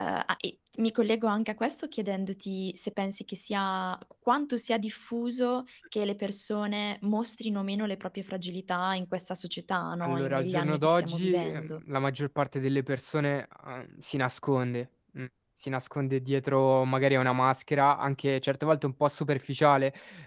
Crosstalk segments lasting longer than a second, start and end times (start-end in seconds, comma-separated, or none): 10.0-11.7